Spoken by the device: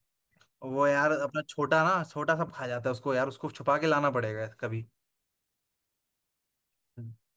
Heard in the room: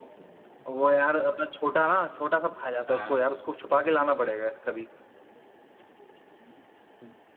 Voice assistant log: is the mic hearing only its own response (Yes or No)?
No